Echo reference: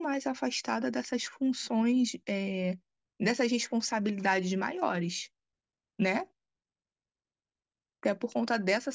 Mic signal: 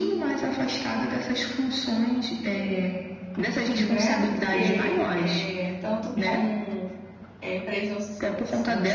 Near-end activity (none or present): present